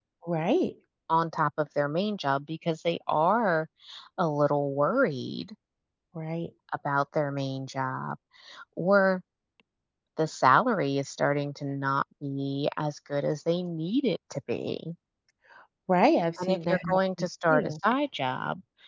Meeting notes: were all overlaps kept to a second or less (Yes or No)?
No